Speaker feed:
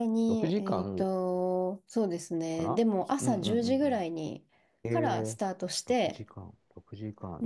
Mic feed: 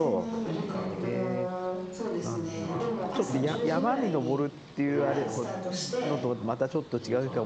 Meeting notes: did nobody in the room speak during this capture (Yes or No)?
No